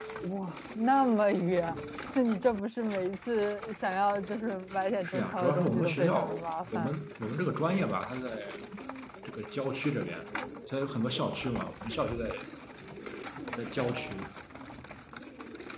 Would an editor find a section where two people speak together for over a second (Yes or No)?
Yes